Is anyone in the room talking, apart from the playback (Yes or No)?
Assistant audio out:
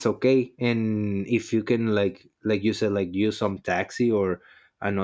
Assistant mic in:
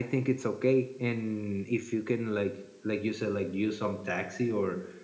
No